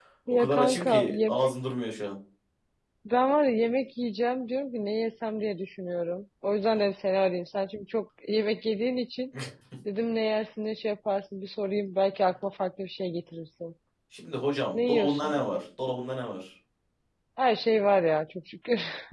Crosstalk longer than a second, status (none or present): present